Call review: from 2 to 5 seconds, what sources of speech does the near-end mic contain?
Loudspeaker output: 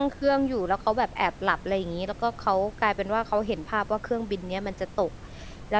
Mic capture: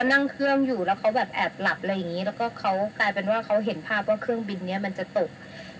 echo only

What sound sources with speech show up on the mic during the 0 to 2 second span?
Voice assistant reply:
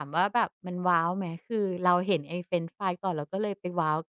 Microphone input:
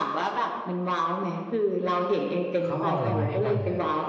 echo only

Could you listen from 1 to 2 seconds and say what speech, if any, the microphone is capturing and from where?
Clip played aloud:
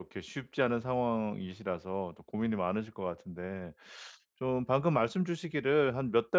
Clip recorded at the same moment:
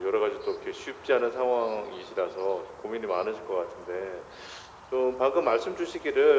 echo only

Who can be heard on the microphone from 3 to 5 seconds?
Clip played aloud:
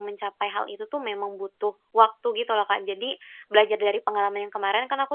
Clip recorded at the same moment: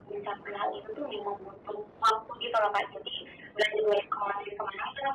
echo only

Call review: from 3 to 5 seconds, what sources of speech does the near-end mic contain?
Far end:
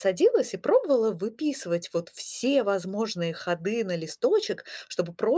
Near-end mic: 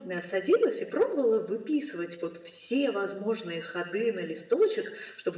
echo only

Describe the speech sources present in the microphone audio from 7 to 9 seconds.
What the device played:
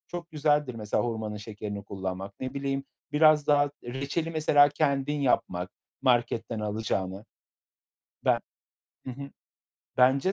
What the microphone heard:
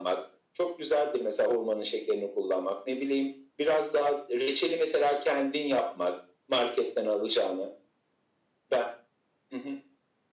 echo only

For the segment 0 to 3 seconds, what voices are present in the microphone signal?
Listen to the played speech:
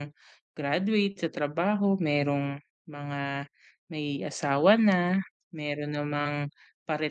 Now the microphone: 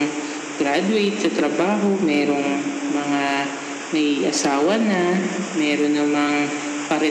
echo only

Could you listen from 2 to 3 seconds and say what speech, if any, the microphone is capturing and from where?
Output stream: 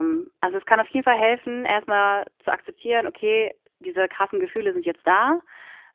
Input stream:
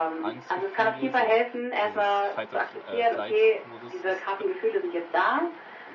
both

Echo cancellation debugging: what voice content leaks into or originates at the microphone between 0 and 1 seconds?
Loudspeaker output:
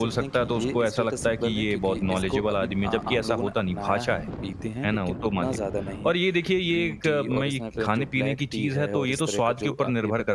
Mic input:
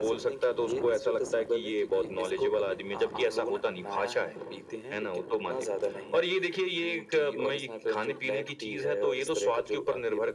echo only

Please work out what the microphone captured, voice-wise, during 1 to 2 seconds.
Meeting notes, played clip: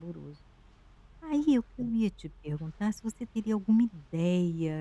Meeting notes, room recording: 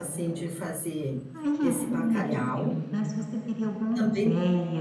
both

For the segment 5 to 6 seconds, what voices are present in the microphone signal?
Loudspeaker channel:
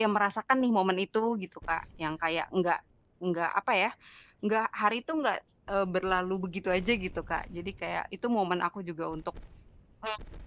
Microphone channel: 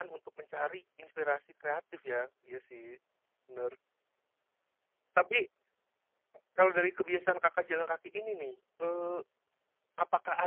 user only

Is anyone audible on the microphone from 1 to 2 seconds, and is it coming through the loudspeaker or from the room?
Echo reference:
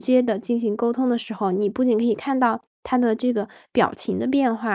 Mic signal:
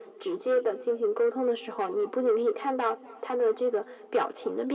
echo only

